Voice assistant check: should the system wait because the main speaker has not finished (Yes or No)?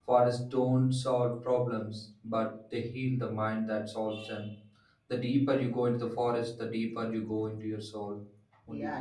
No